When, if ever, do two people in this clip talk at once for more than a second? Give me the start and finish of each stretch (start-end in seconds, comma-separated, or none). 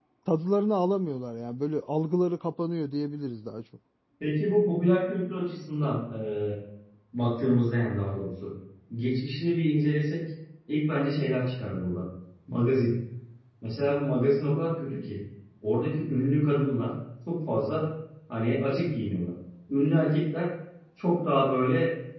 none